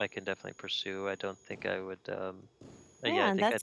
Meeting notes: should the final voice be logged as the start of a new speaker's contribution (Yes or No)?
Yes